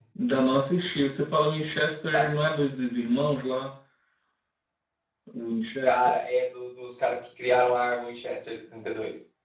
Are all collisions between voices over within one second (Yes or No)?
Yes